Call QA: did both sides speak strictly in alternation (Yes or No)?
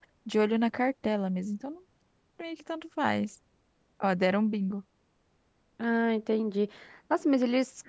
Yes